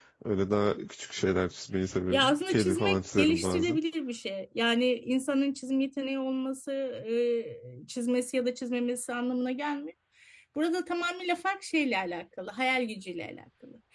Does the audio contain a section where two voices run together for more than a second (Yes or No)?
Yes